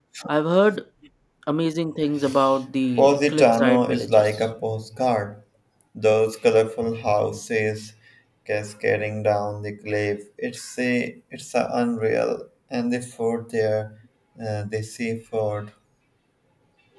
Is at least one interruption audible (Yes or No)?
Yes